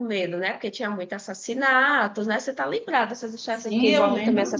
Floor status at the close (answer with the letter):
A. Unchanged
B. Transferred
B